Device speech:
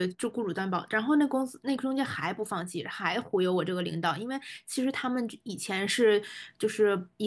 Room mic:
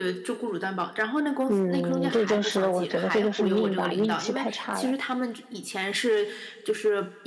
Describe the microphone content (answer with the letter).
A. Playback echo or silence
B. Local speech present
B